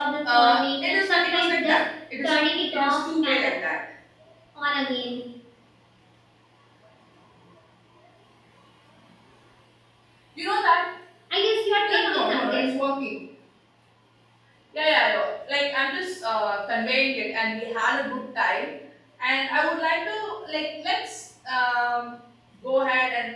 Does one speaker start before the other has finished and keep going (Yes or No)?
Yes